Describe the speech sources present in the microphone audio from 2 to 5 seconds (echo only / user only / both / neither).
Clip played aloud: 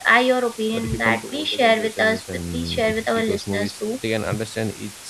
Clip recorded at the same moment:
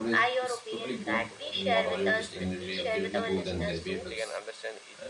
both